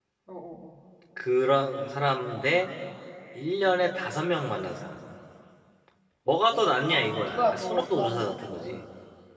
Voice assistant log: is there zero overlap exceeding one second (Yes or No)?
No